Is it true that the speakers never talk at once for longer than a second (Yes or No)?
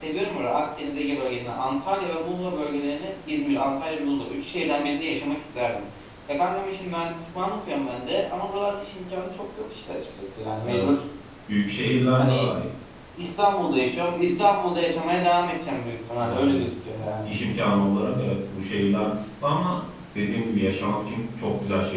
Yes